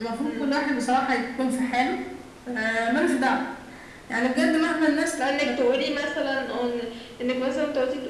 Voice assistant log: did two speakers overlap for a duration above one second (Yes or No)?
No